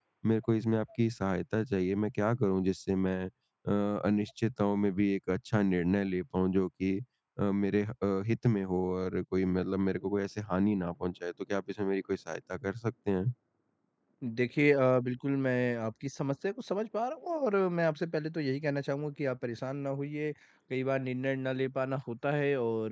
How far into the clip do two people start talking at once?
none

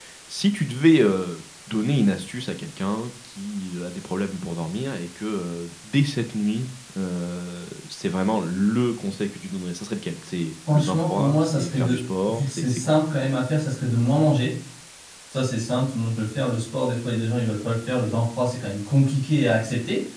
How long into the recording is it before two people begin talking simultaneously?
11 s

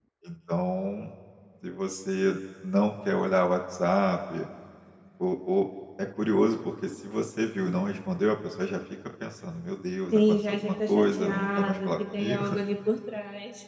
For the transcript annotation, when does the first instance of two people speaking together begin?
10 s

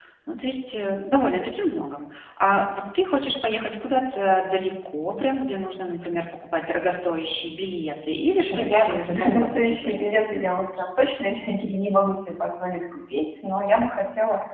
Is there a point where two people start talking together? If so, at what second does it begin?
8 s

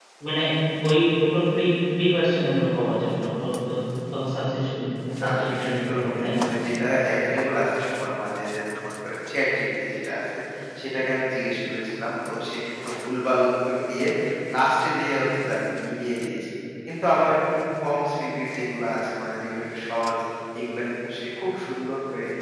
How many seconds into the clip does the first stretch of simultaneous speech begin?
5 s

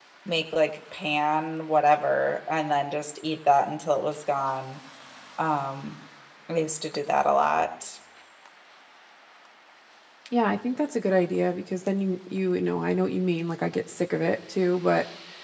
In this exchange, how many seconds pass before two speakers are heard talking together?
none

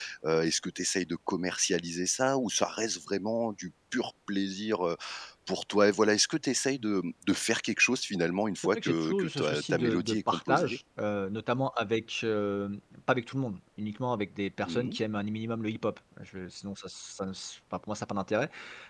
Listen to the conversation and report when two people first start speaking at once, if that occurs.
9 s

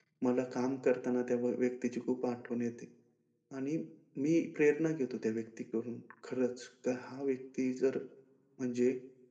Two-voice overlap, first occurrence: none

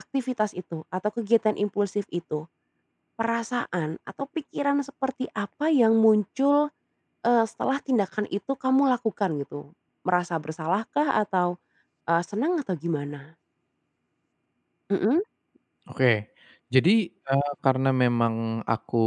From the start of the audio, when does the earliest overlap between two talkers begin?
none

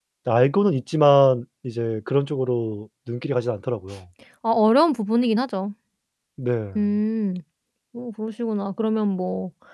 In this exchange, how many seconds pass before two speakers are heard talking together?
none

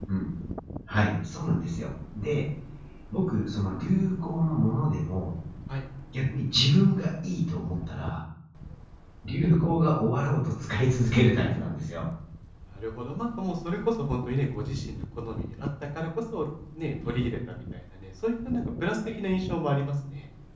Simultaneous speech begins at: none

